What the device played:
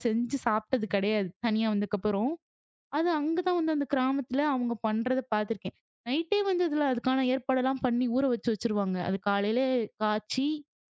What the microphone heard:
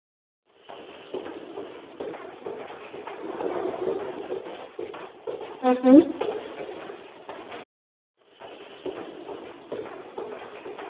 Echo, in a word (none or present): none